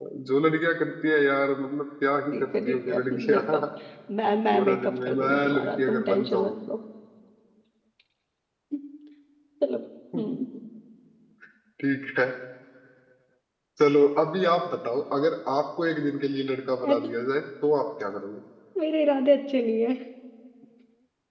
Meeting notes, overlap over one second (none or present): present